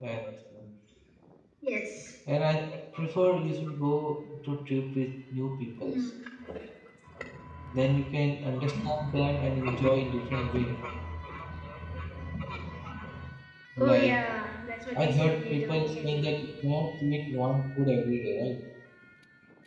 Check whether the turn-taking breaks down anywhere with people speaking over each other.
Yes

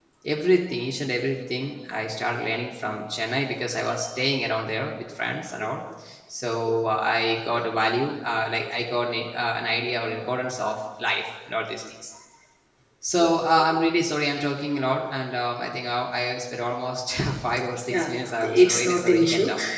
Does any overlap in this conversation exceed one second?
Yes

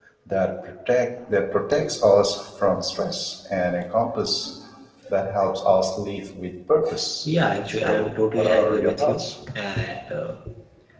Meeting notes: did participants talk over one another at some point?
Yes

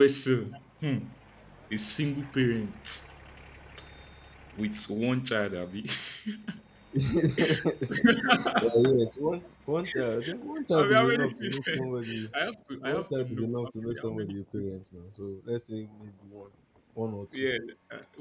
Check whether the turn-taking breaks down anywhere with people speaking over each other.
Yes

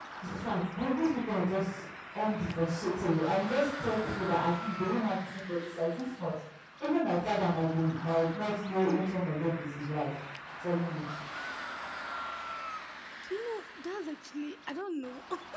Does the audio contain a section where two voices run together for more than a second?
No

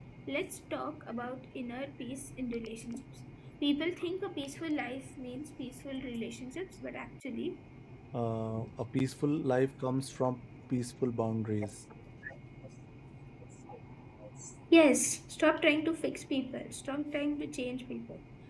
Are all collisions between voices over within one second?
Yes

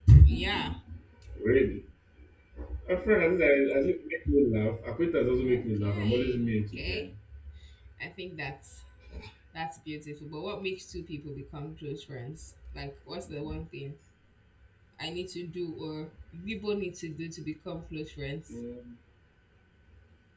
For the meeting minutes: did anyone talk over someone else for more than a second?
Yes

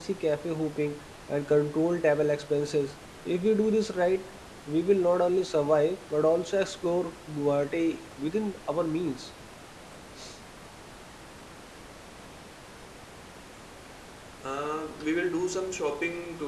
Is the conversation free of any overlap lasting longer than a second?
Yes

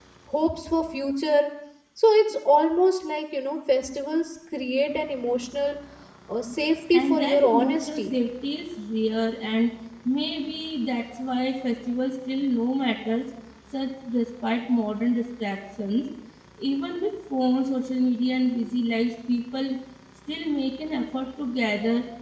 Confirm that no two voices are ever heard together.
No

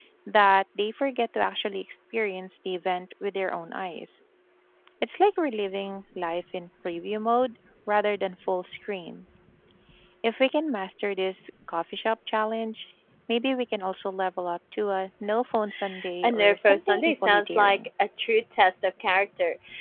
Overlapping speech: Yes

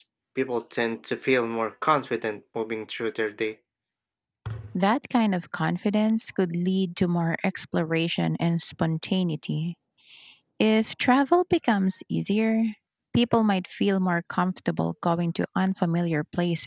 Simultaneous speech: No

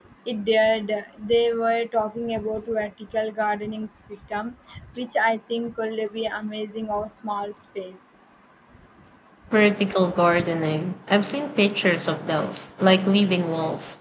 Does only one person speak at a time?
Yes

